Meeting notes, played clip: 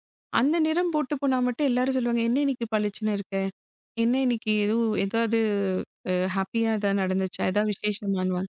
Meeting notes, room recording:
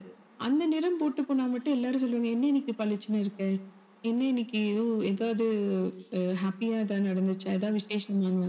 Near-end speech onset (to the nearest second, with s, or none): none